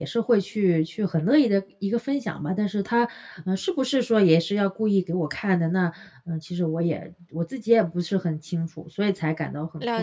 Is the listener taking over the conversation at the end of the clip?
Yes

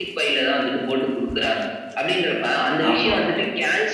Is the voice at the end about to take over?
No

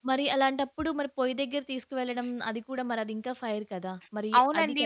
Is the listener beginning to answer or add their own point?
Yes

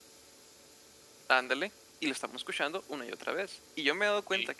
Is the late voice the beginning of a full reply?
No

